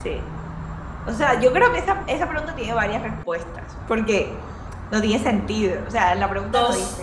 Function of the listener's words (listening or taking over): taking over